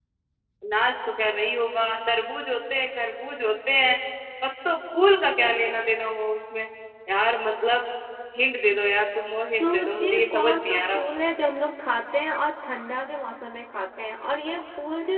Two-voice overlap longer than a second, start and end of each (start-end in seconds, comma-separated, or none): 9.6-11.0